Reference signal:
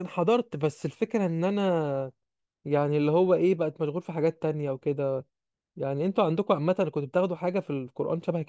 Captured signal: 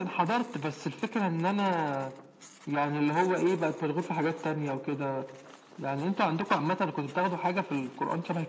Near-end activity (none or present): none